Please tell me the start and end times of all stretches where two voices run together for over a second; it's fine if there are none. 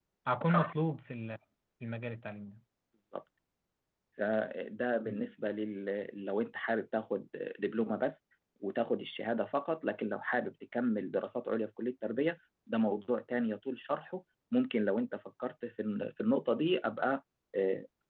none

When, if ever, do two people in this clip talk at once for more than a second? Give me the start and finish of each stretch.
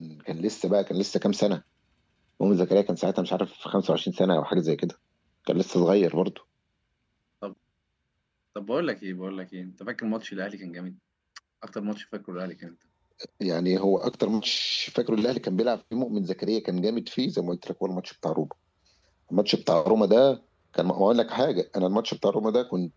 none

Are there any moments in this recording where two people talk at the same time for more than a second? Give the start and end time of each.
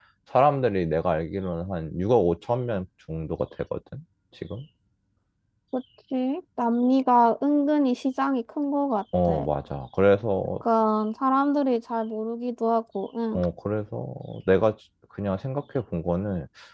none

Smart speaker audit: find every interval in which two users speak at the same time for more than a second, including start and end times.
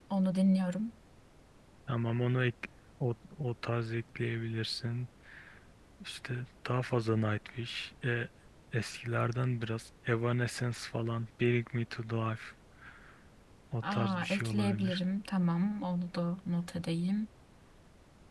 13.8-15.0

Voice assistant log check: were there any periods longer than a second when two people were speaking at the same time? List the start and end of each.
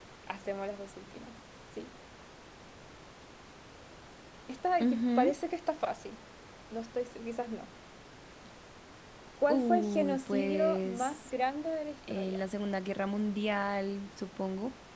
9.5-11.3

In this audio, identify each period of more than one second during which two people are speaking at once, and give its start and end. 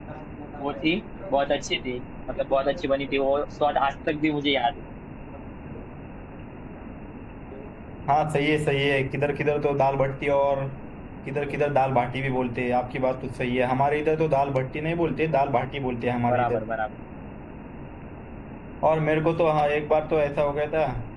none

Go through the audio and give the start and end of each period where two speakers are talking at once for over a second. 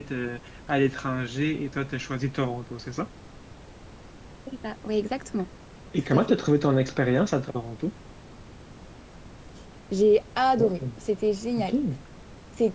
none

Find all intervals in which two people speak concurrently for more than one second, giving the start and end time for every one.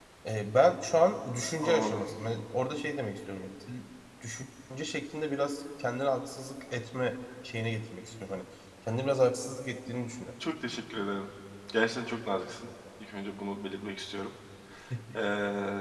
none

